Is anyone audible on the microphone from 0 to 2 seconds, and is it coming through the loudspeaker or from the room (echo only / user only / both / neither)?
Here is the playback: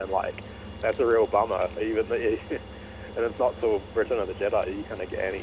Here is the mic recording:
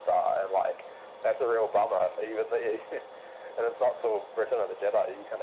echo only